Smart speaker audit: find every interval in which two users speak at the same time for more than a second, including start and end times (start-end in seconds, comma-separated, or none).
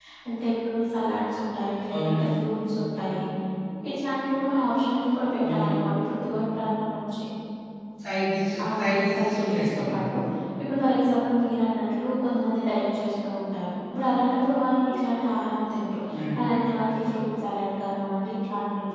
8.7-9.9